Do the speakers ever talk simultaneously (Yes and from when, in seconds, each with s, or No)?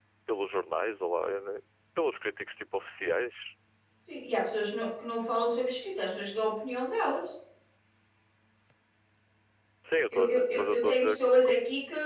Yes, from 10.1 s